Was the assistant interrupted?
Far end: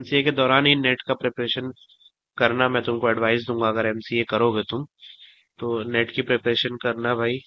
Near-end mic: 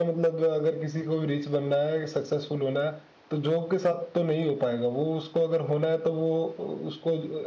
Yes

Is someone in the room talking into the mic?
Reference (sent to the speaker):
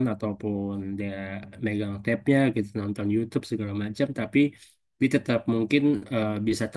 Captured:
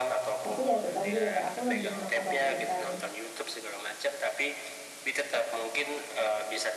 Yes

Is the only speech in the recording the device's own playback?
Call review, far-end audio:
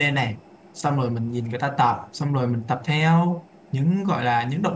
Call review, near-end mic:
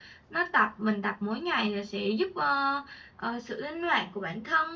No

